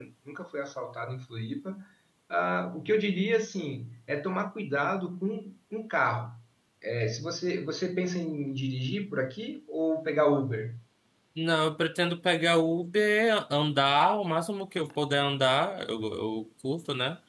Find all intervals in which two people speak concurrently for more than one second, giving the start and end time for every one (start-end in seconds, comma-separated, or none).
none